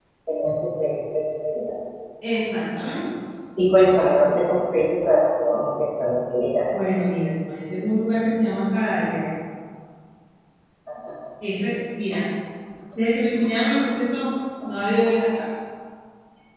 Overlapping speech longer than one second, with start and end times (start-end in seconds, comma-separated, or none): none